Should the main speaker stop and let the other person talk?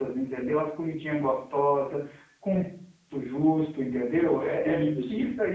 No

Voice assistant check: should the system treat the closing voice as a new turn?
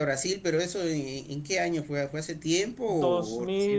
Yes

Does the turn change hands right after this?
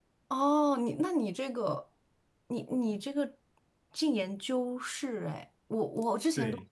No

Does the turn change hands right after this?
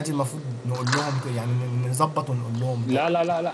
Yes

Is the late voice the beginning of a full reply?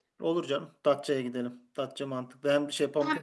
Yes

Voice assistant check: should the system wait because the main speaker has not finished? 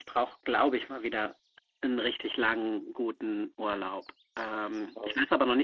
Yes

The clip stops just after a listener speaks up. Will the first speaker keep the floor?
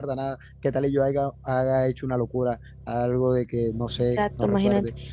No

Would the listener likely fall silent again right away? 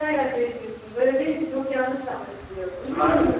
No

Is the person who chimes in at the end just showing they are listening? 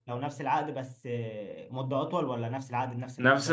No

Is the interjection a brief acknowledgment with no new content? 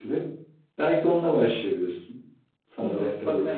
No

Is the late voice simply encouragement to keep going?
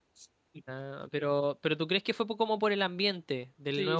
No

